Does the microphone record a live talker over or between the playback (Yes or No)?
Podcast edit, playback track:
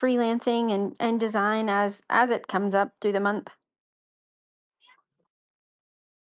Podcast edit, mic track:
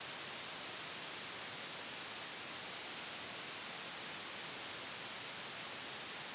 No